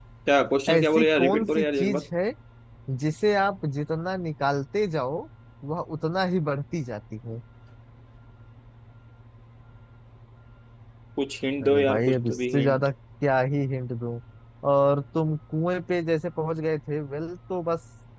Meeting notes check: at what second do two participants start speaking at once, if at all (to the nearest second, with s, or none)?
1 s